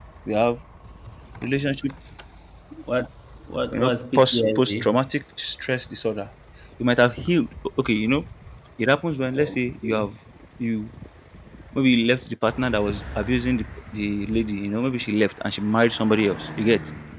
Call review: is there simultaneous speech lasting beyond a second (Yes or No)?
Yes